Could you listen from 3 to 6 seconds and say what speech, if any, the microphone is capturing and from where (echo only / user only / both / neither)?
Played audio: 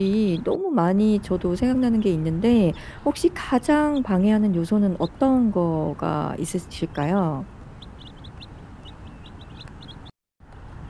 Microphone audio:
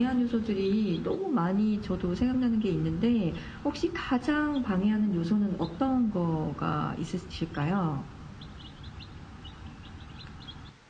echo only